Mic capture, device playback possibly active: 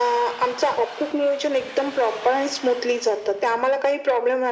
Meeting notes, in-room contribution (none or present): none